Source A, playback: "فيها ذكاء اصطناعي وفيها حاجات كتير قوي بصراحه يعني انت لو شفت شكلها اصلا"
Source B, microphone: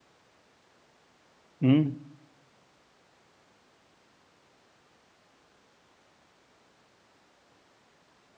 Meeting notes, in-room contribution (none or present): present